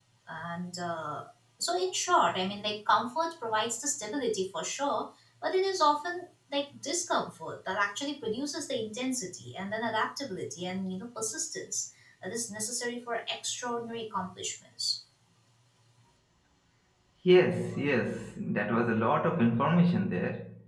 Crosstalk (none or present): none